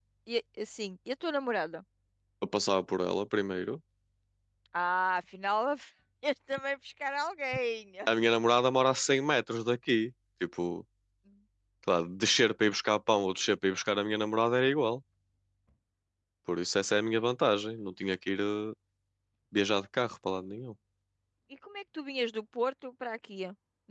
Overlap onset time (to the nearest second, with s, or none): none